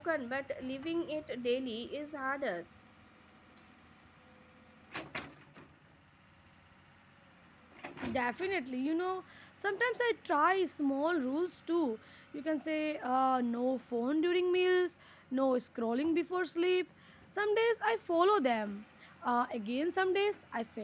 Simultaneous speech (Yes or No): No